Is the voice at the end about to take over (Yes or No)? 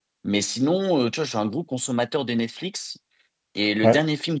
No